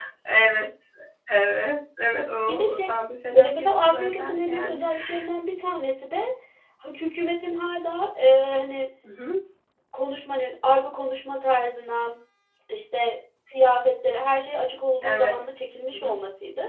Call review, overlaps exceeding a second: present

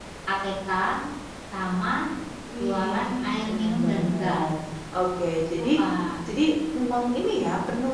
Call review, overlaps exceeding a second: present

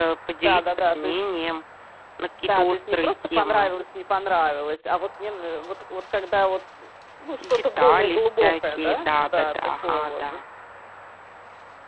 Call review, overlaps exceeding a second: present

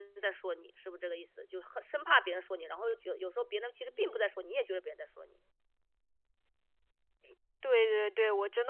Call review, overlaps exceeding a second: none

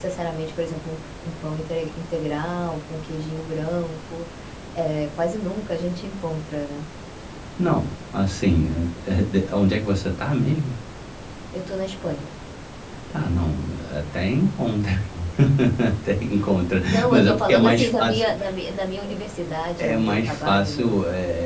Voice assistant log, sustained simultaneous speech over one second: present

